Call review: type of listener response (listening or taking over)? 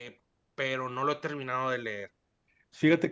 taking over